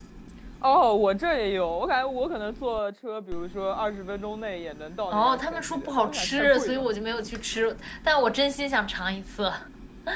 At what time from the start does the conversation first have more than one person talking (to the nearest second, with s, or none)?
5 s